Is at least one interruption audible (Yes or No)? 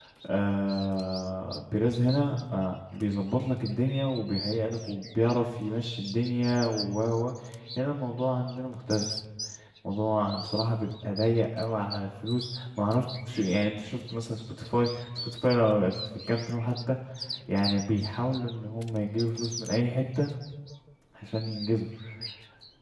No